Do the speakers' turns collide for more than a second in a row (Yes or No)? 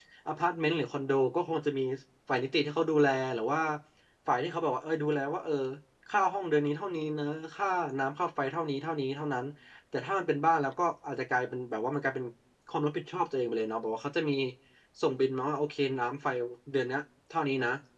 No